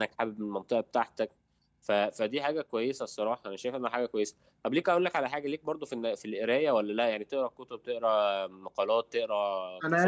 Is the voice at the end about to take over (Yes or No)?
Yes